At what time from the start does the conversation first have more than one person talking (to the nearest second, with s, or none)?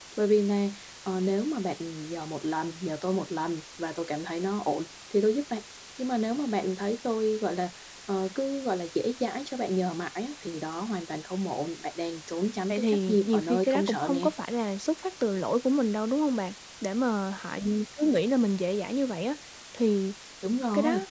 13 s